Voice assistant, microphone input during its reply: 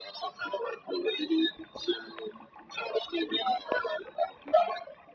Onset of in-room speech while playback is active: none

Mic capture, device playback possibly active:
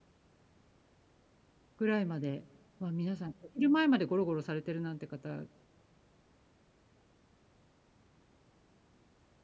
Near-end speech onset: 1.8 s

